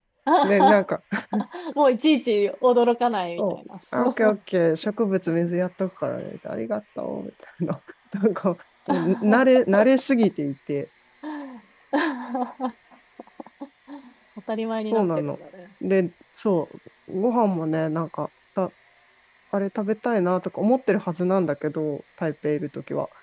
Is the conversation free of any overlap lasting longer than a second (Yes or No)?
Yes